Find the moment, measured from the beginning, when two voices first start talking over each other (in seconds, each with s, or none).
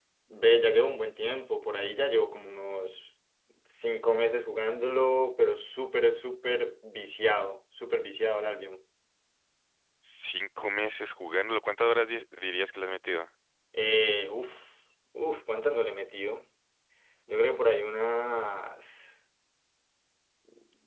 none